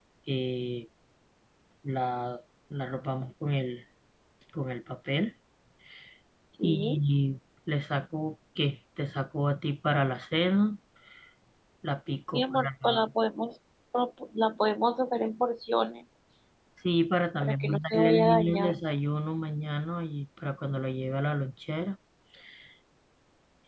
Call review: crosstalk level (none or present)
present